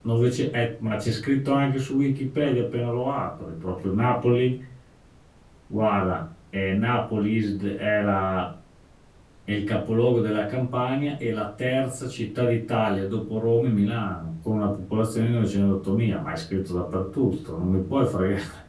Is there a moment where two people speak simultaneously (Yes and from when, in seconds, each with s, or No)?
No